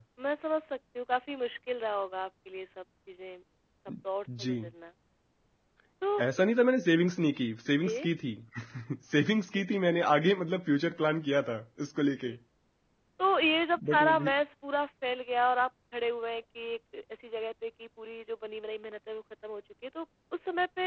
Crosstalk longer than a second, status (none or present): none